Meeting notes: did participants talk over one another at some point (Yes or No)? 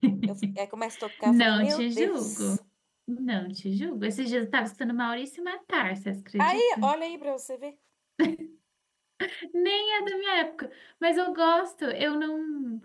Yes